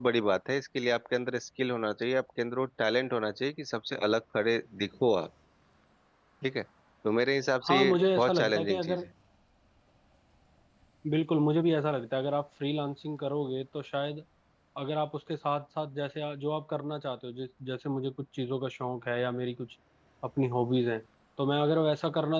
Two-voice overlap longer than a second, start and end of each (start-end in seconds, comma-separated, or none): 7.7-9.0